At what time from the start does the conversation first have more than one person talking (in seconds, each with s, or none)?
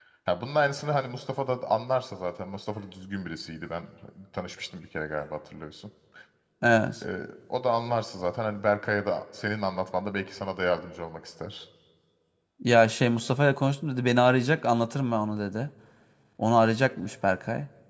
none